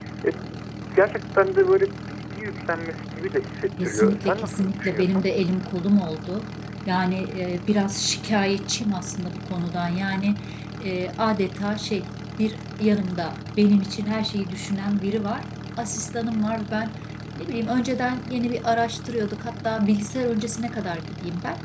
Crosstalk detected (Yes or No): Yes